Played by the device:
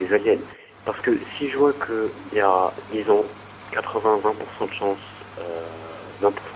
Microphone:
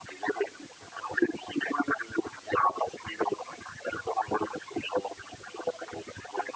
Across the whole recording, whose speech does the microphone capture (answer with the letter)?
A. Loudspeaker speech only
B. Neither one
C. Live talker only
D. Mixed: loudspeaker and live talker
A